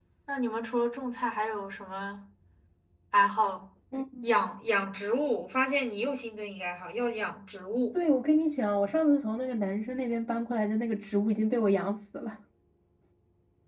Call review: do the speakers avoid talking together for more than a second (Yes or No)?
Yes